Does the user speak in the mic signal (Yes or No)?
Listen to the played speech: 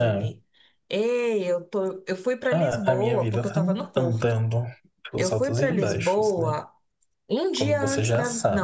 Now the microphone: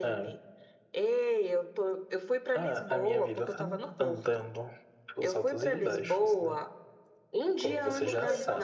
Yes